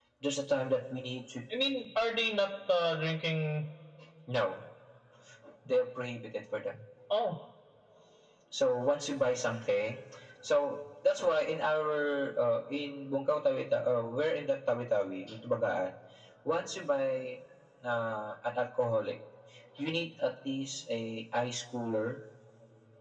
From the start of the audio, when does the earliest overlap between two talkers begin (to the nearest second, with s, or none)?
none